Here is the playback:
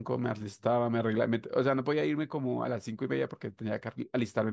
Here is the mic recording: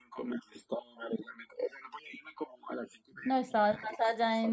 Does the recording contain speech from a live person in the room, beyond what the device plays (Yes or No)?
Yes